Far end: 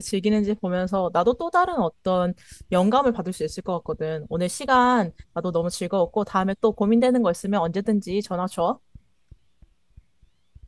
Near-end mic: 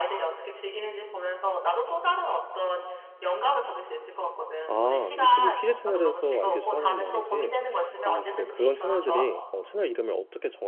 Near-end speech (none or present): present